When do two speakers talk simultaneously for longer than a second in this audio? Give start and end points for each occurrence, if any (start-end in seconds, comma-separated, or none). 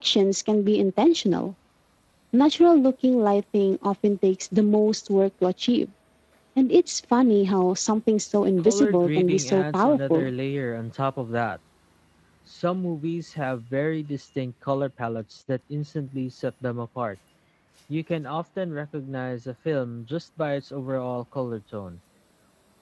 8.7-10.3